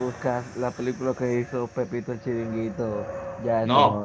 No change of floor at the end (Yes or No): No